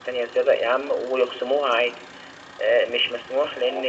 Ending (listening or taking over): listening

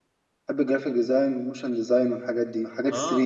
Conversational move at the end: taking over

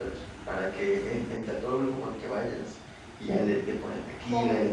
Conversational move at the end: listening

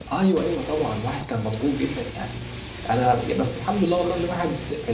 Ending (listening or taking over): listening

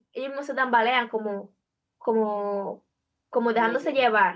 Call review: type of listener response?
taking over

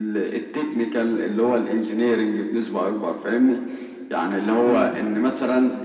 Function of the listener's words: listening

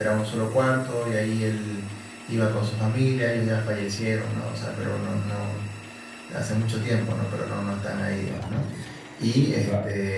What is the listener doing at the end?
listening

